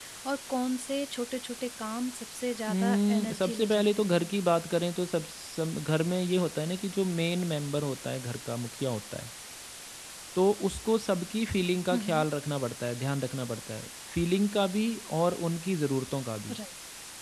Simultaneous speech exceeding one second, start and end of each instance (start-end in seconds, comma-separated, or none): 2.7-4.0